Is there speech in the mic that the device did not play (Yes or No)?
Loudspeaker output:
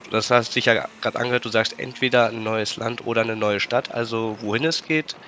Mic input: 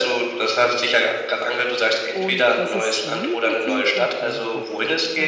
Yes